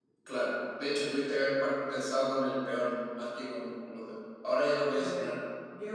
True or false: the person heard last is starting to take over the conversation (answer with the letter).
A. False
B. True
B